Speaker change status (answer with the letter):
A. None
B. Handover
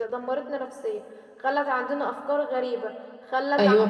A